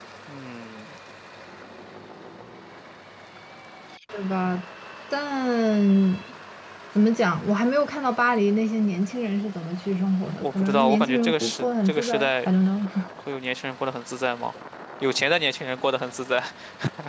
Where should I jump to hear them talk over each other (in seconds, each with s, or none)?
10.4 s